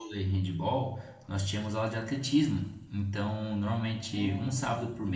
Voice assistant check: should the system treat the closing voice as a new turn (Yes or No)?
No